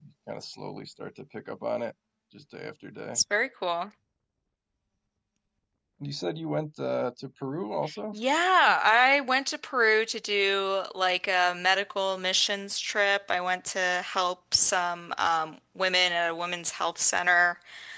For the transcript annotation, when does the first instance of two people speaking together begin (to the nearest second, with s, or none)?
none